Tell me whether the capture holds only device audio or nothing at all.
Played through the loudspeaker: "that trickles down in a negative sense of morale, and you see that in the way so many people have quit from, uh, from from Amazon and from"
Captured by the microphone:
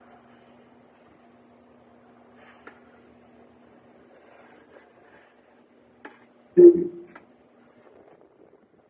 No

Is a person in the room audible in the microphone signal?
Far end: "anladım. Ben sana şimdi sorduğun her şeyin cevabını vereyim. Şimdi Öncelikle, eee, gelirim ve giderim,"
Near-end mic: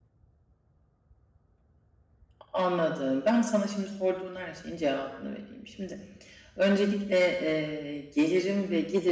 No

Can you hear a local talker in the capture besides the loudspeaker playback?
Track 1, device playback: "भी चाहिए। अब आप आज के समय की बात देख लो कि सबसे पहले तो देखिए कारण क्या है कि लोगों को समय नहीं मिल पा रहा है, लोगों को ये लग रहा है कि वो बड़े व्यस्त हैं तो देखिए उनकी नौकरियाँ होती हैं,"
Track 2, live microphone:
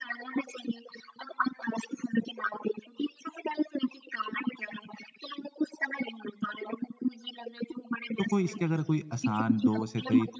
Yes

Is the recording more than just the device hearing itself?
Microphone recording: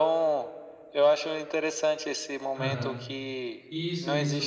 Yes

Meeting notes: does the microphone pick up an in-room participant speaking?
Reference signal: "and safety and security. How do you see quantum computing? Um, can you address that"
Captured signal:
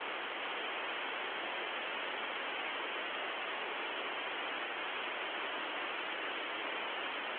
No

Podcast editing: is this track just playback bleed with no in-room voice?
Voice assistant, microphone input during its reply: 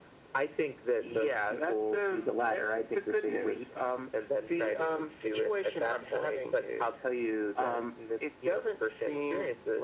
Yes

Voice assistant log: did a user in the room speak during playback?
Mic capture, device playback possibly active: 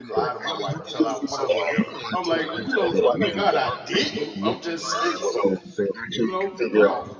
Yes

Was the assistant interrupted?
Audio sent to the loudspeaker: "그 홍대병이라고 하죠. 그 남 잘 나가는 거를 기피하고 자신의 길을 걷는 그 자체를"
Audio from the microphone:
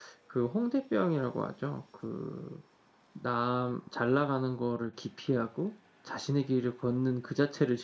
No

